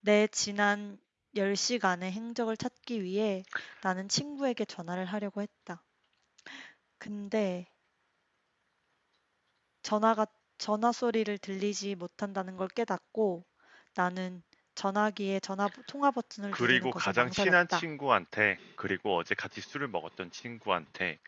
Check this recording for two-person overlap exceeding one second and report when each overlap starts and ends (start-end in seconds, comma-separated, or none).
16.5-17.8